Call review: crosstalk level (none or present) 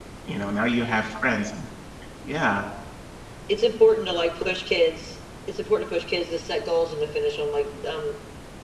none